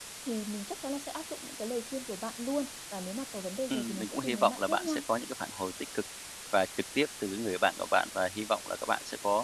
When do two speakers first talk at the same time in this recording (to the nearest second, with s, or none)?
4 s